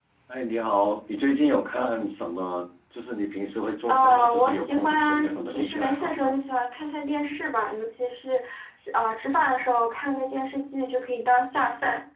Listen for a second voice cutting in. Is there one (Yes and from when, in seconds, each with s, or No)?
Yes, from 3.9 s